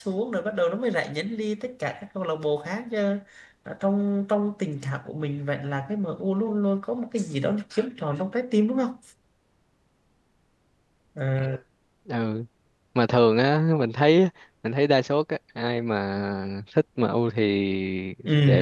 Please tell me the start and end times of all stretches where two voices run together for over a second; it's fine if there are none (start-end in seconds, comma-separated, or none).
none